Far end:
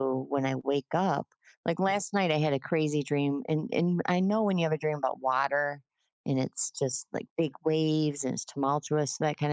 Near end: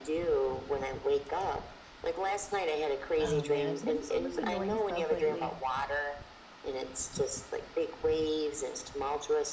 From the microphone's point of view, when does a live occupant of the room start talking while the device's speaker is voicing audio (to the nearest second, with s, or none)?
3 s